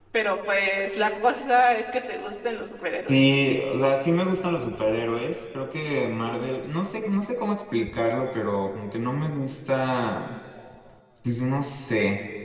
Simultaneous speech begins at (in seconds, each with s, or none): none